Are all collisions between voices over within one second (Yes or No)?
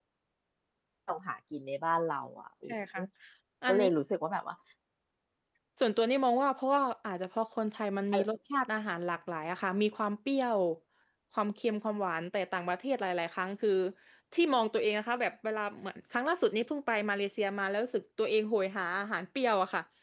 Yes